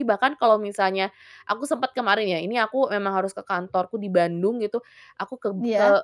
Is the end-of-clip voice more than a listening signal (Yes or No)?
No